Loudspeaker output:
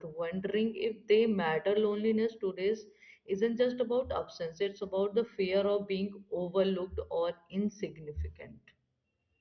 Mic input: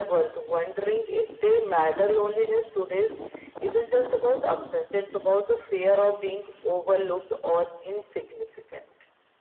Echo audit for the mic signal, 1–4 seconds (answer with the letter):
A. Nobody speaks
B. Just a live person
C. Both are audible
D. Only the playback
D